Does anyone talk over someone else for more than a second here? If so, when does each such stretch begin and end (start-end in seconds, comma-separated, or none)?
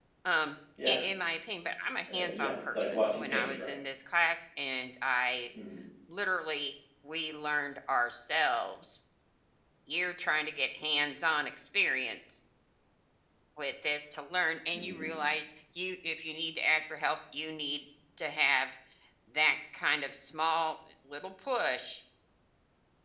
2.1-3.8